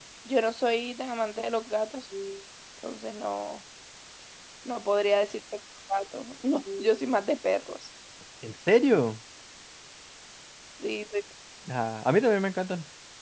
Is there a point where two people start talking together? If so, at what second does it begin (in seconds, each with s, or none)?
none